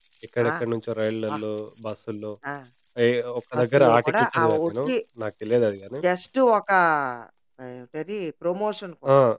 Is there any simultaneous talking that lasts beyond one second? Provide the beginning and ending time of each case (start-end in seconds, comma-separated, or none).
3.5-4.8